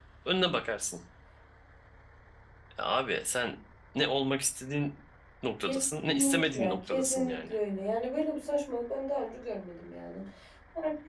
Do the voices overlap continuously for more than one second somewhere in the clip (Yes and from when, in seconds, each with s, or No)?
Yes, from 5.6 s